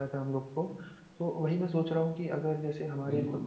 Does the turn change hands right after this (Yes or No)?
No